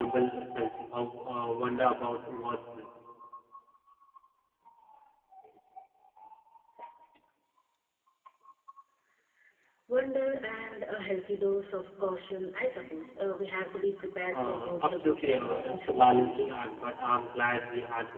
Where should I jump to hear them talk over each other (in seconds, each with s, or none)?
14.3 s